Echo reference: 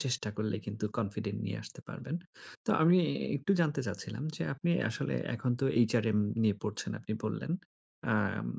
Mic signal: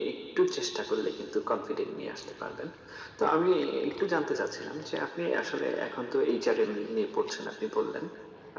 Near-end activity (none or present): none